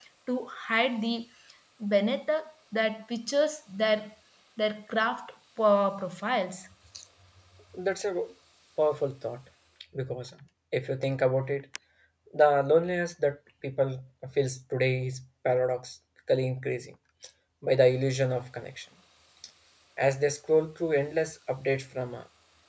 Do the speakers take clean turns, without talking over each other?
Yes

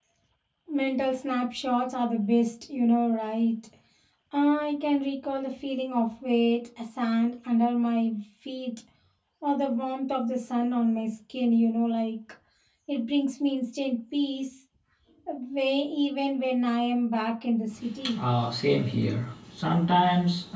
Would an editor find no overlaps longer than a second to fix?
Yes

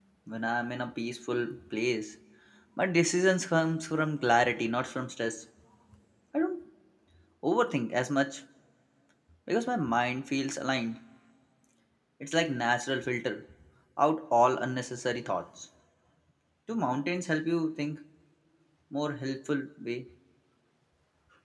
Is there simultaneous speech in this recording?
No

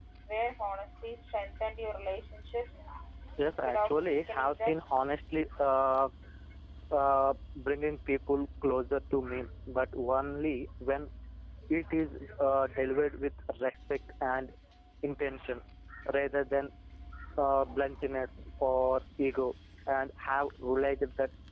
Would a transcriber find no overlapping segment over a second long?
No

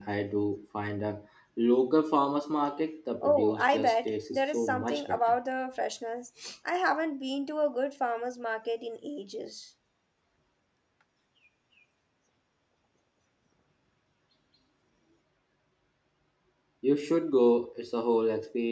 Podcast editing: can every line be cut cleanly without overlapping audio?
No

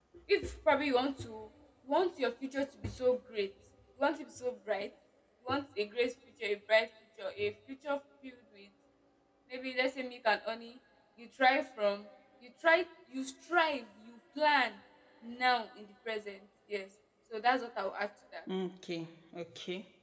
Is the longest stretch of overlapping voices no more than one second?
Yes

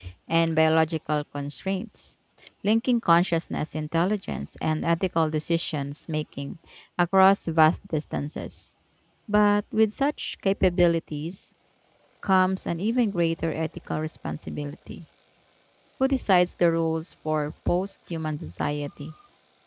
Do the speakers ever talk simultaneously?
No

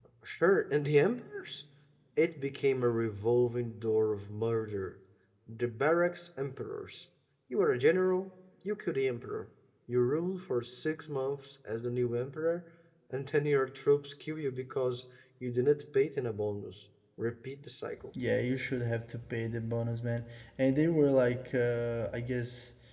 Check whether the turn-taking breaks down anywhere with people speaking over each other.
No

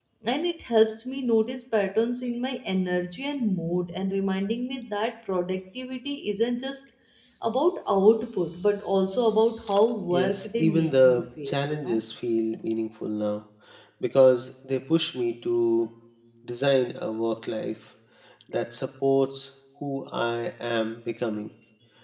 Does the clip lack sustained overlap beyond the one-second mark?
No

